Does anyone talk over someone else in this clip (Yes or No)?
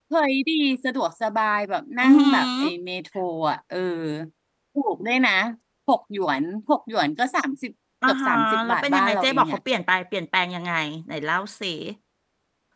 Yes